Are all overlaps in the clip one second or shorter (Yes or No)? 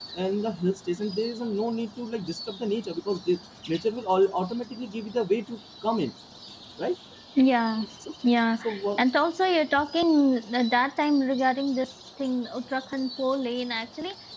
Yes